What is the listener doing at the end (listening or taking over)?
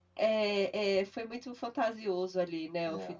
taking over